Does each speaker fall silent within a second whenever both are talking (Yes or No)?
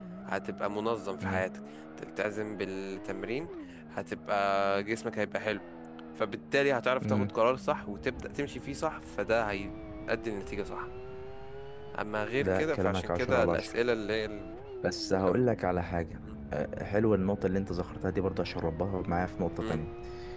No